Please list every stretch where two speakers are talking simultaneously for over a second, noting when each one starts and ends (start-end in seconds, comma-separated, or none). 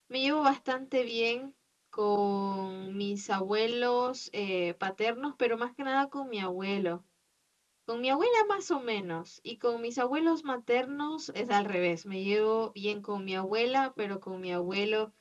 none